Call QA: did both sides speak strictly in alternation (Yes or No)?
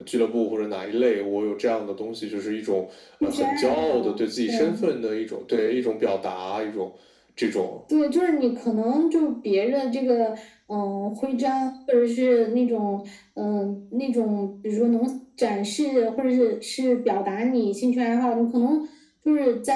No